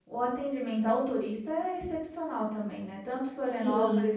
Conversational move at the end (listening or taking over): listening